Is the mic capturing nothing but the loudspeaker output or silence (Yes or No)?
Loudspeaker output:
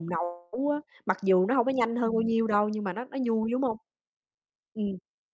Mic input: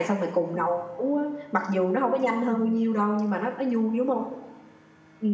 Yes